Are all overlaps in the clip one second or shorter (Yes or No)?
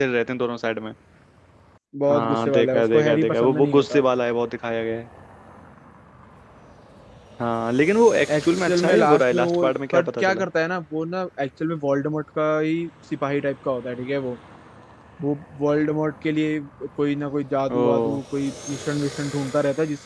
No